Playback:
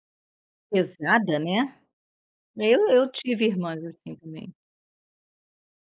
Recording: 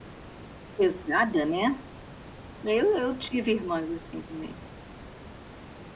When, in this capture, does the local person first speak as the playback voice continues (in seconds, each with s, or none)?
none